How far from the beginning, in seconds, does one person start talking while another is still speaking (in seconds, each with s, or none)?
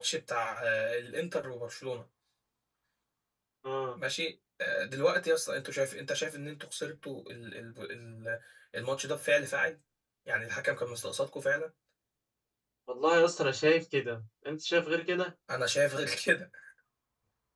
none